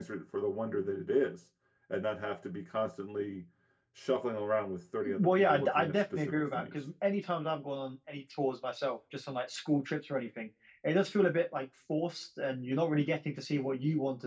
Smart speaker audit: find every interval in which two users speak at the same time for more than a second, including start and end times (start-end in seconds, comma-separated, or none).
5.2-6.8